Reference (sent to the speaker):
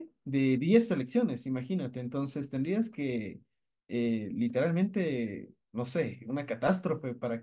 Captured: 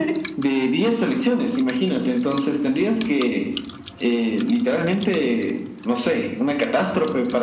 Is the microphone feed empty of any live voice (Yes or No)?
Yes